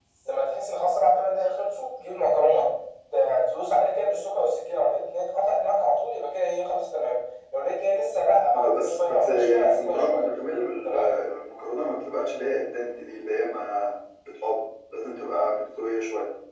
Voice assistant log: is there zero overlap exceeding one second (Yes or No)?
No